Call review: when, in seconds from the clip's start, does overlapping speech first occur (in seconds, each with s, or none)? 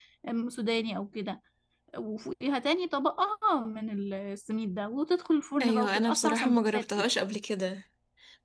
5.6 s